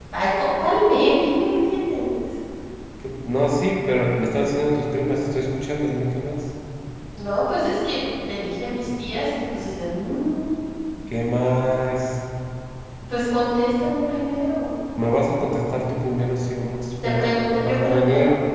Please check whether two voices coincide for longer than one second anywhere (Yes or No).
Yes